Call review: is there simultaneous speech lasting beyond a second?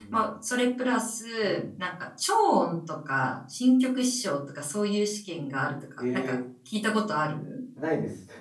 No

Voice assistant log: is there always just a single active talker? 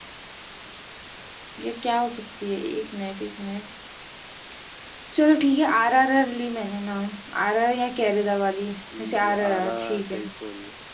No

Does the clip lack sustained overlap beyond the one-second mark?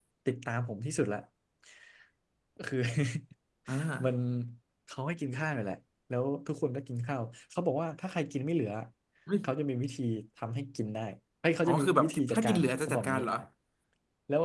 No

